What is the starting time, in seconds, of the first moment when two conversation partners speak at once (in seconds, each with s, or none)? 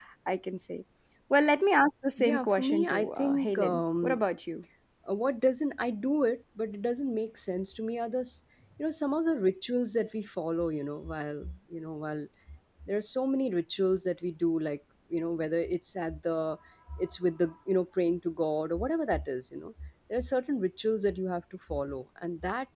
2.2 s